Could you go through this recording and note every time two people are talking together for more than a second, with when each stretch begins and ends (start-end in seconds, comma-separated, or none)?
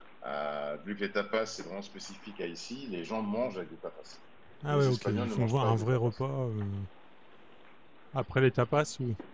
4.7-6.1